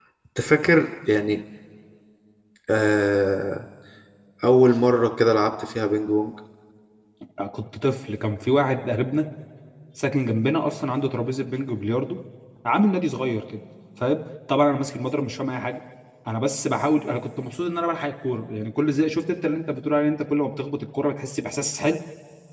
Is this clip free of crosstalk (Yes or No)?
Yes